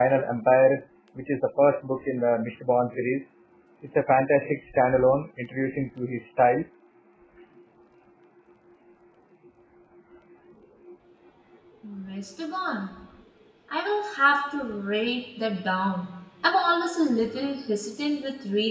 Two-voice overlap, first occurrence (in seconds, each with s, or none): none